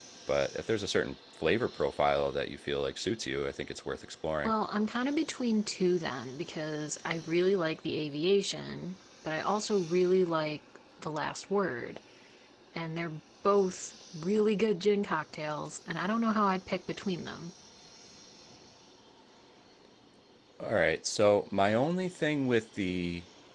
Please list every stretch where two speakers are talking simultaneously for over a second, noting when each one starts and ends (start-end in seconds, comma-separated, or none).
none